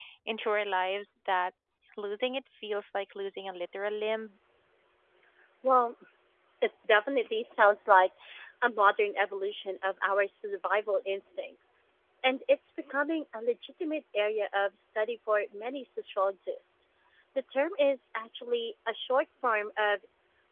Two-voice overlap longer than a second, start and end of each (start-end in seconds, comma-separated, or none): none